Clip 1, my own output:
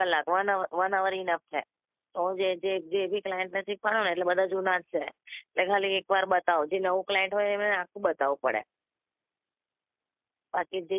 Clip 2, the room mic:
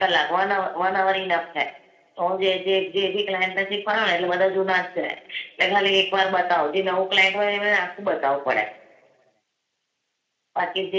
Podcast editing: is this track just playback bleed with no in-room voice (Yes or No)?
Yes